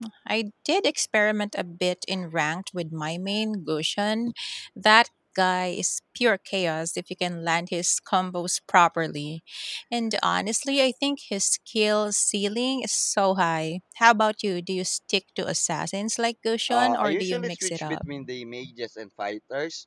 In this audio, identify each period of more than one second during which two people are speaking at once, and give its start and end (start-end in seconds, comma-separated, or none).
16.7-18.0